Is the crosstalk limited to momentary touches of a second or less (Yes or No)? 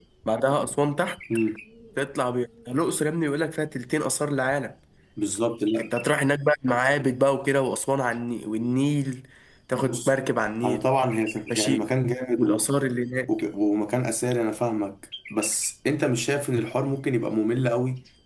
Yes